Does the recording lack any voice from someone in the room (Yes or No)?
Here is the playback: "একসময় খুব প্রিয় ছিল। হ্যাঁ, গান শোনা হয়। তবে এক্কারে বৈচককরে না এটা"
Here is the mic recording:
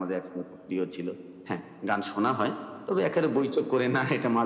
Yes